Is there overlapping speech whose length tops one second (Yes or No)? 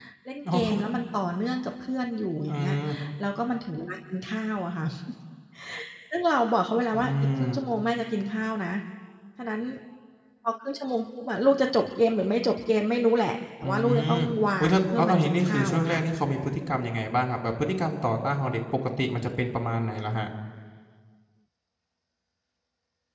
Yes